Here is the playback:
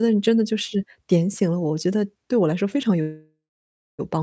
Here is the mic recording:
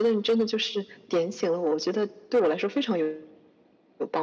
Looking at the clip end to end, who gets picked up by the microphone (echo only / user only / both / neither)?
echo only